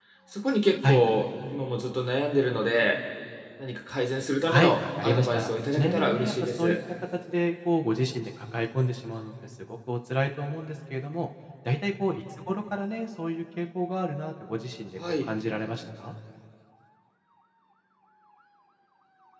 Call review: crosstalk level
present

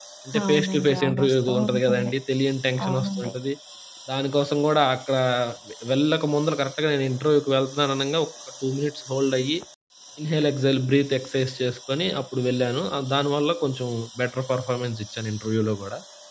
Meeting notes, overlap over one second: present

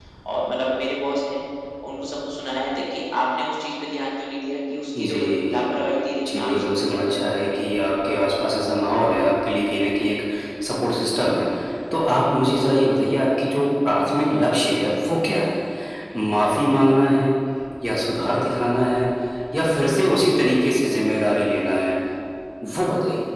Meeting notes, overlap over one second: present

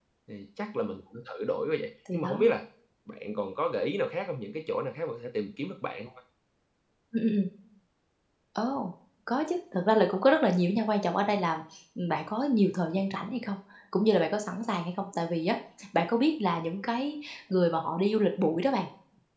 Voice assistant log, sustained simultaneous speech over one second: none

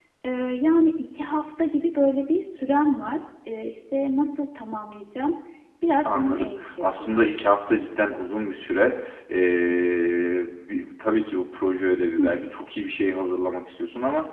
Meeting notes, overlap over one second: present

